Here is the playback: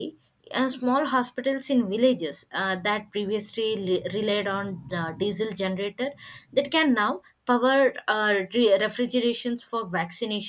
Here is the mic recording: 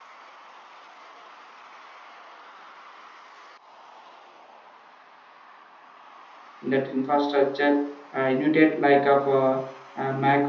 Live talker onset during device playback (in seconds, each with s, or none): 6.6 s